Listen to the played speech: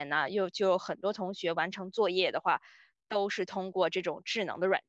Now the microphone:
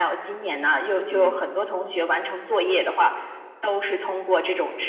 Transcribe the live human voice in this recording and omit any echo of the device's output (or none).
嗯